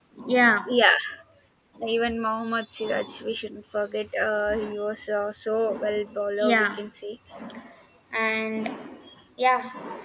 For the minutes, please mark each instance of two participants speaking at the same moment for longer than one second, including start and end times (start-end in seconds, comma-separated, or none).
none